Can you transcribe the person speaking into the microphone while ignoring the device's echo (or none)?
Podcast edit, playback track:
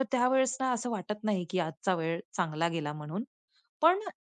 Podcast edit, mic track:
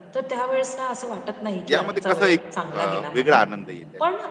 यामध्ये कसा एक अ, वेगळा आनंद येते आणि